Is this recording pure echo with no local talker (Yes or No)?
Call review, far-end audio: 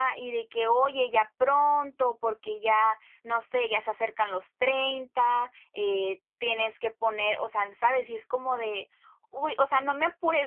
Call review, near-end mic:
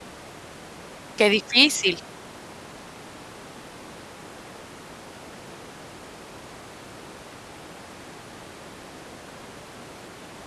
No